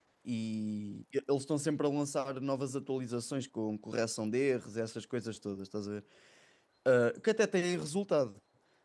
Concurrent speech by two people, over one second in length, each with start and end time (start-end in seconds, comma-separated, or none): none